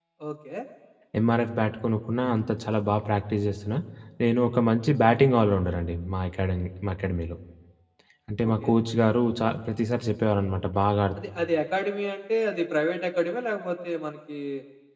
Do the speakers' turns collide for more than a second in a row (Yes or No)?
No